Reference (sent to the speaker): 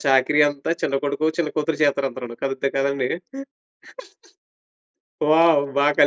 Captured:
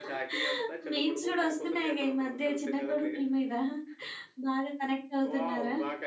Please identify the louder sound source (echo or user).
user